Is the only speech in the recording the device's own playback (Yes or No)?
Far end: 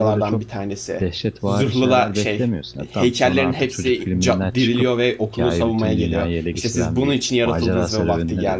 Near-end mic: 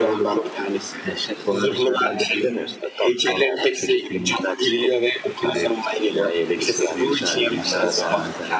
No